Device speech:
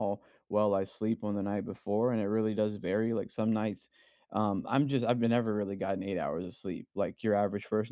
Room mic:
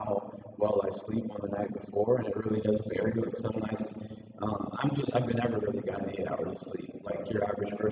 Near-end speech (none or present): none